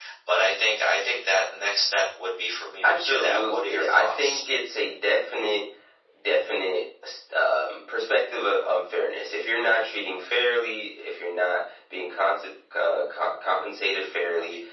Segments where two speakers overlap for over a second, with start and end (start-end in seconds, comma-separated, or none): 2.8-4.4